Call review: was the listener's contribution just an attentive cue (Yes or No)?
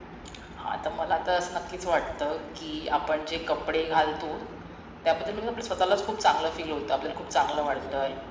Yes